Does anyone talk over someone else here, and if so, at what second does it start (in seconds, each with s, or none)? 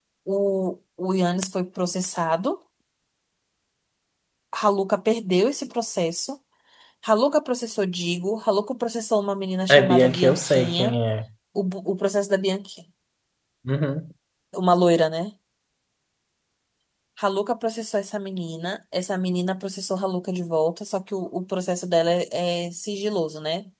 9.7 s